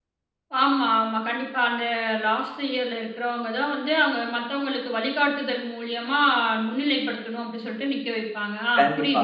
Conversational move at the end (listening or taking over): taking over